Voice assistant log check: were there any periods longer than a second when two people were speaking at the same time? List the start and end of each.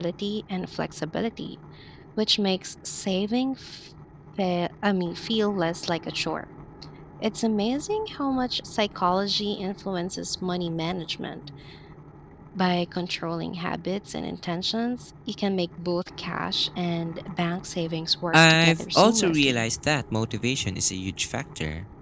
18.3-19.6

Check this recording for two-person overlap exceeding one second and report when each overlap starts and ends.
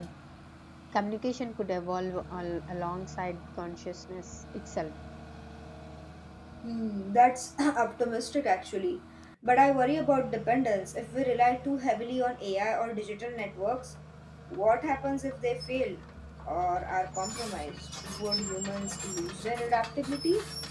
none

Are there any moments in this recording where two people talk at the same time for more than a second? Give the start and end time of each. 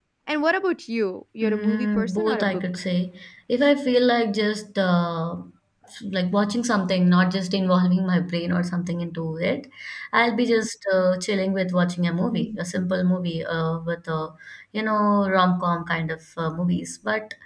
1.4-2.8

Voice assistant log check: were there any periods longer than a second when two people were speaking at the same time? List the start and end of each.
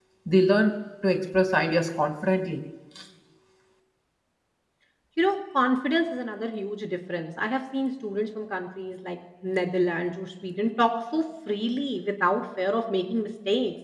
none

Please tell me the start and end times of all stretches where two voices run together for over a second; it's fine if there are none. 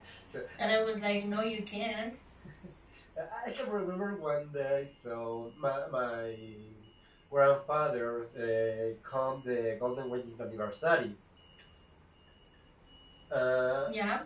none

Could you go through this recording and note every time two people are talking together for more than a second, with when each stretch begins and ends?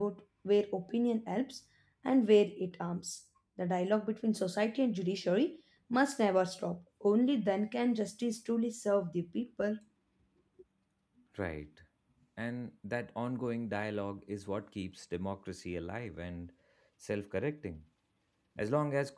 none

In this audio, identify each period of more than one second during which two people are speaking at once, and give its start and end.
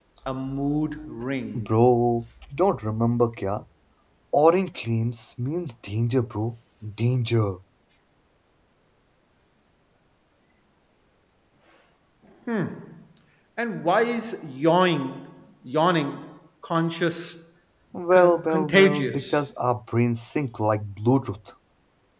18.1-19.4

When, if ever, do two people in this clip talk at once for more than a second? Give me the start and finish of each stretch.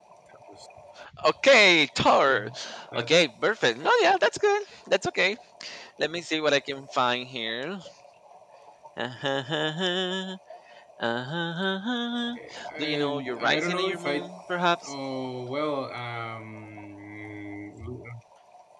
12.8-14.3

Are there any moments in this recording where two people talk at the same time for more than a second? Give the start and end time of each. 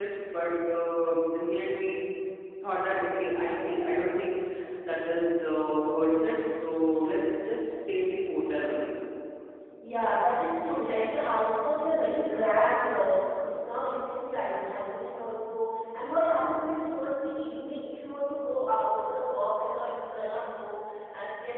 none

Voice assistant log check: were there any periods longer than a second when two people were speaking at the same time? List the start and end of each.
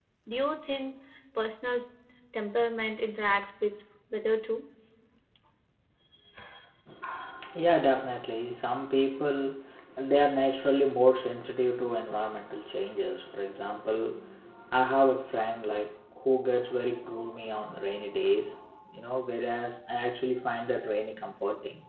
none

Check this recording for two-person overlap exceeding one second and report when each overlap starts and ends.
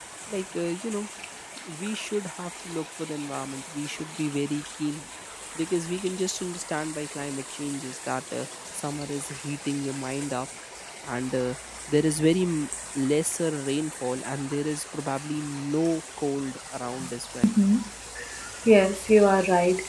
none

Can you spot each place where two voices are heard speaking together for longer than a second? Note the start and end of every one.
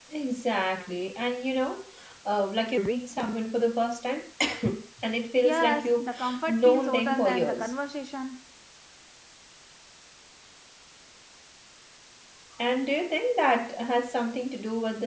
5.4-7.7

